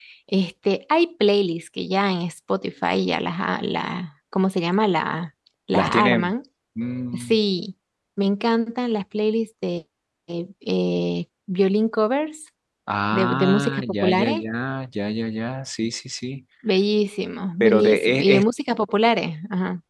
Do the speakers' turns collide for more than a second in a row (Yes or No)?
Yes